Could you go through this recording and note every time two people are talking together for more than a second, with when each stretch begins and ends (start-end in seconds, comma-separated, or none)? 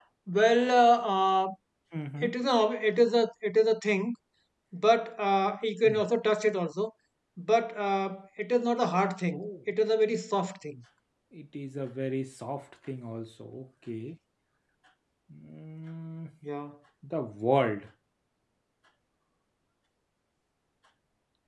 none